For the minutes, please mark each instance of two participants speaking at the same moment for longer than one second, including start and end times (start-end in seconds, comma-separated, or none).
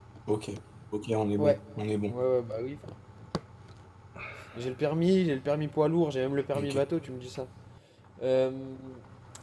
none